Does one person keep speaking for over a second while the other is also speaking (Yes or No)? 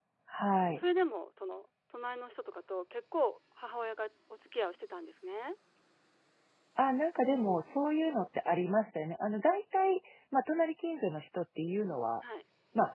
No